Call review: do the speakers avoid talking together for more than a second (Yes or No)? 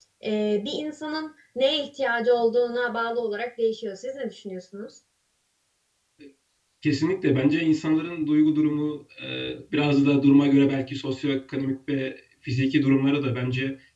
Yes